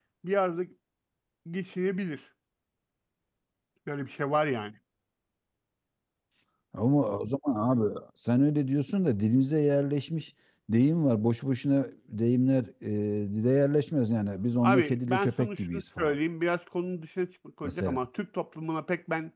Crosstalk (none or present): present